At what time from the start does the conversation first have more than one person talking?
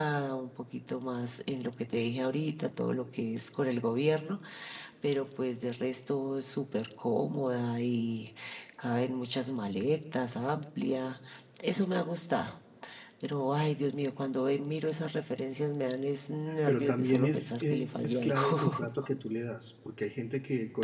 16.7 s

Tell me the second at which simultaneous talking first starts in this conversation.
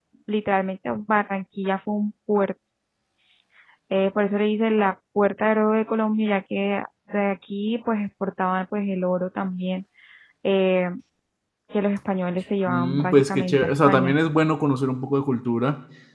12.7 s

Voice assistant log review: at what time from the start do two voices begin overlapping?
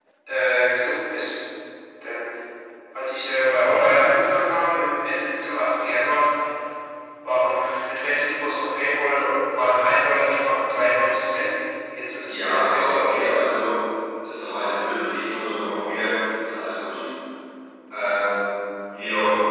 12.3 s

